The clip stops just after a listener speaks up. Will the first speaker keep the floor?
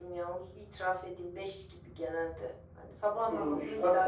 No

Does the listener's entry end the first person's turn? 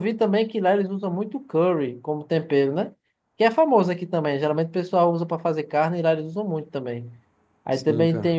No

